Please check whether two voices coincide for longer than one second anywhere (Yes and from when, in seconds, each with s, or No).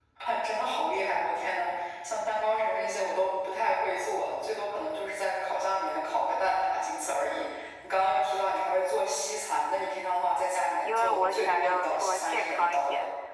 Yes, from 10.8 s